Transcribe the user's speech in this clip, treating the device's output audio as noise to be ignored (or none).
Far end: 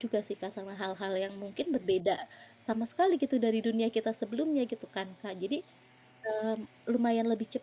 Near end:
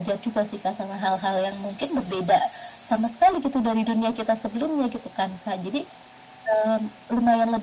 none